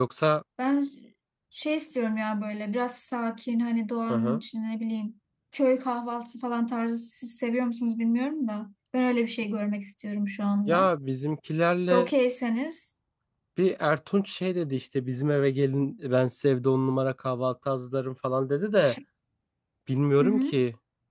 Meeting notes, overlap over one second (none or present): none